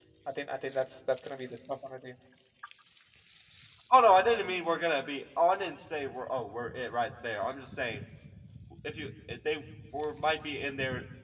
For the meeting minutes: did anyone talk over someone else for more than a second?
No

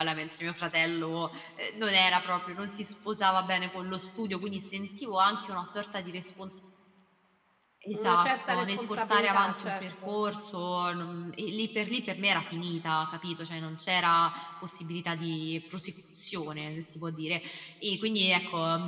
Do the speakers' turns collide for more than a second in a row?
Yes, from 7.9 s

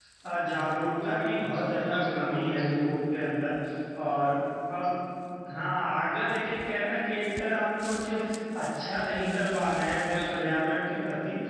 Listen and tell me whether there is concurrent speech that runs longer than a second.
Yes, from 1.0 s

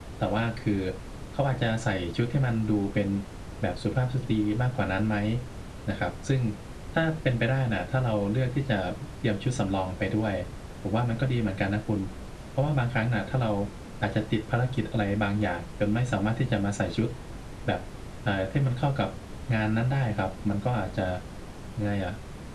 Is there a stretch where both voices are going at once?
No

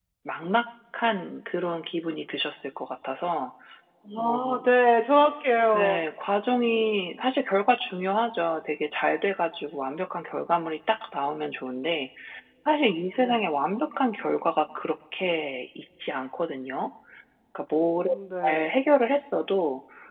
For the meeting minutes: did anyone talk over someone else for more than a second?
No

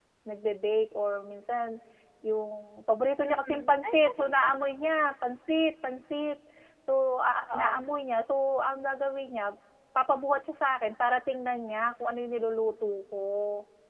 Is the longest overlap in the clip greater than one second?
Yes, from 3.2 s

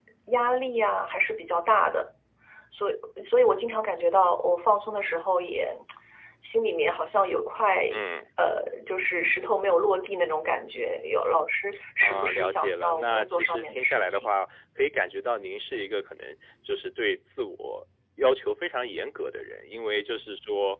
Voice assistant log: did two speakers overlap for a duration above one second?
Yes, from 12.0 s

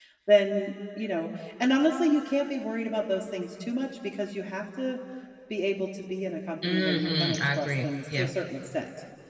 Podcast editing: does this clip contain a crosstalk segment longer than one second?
Yes, from 6.6 s

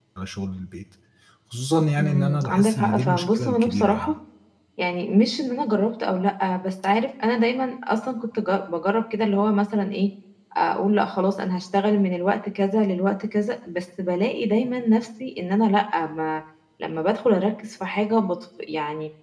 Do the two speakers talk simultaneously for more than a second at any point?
Yes, from 2.0 s

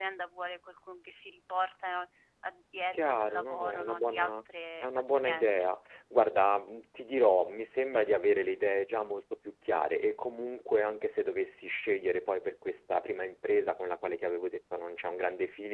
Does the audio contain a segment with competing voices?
Yes, from 2.9 s

